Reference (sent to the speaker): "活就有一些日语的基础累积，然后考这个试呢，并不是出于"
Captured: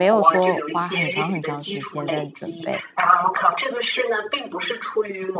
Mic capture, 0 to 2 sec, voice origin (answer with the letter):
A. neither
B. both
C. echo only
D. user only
B